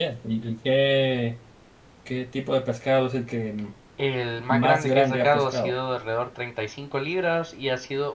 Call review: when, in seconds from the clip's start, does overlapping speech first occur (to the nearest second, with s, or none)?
5 s